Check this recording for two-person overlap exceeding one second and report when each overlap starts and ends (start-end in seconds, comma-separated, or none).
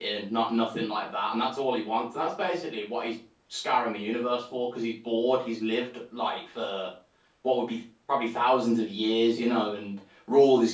none